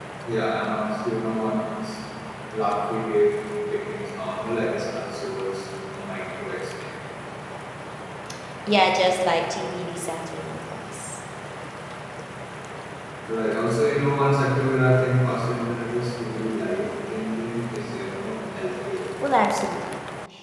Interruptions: none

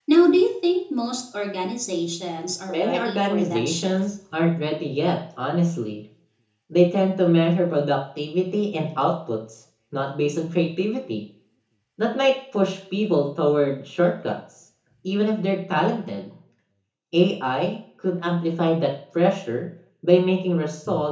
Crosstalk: present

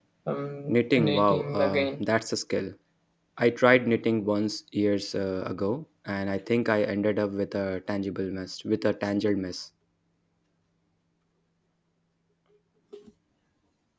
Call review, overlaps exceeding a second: present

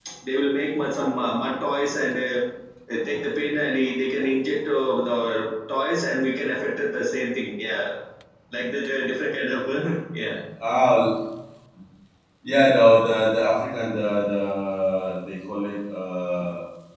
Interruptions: none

